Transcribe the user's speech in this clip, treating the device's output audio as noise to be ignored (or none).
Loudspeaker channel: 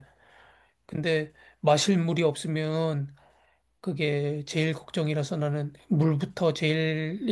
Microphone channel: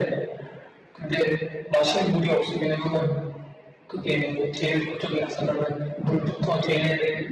none